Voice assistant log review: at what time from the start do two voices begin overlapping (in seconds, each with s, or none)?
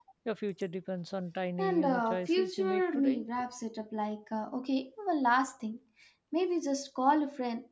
1.6 s